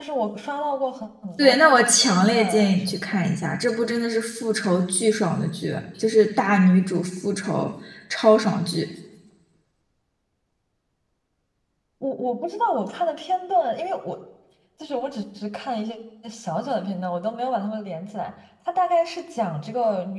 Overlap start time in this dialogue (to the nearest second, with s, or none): 1 s